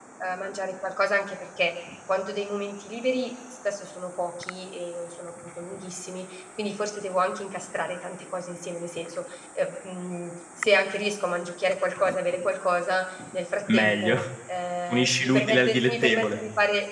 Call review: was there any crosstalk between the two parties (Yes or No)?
Yes